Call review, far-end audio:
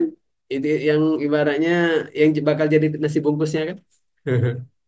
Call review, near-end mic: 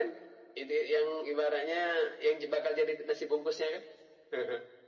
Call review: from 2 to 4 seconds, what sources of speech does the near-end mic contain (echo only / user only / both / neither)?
echo only